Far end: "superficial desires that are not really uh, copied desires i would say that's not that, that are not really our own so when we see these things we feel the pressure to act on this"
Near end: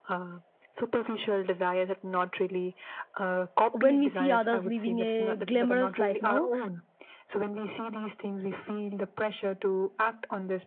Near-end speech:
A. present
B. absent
A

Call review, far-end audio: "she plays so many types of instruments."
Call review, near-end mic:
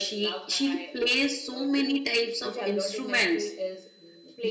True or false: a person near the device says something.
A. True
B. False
A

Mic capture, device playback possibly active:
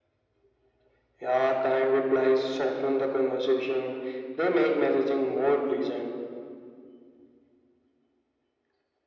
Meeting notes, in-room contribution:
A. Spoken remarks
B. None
B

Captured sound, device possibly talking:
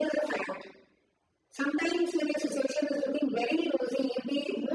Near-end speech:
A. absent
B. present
A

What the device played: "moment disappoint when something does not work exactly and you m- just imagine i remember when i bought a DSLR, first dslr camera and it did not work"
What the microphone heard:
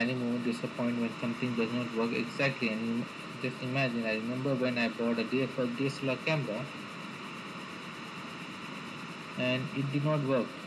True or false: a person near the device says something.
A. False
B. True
A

